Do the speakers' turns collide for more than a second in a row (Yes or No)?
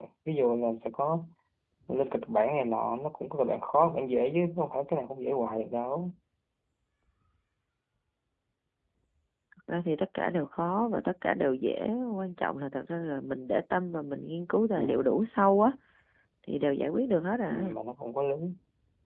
No